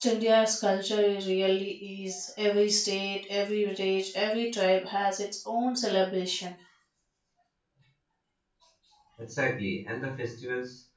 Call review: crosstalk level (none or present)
none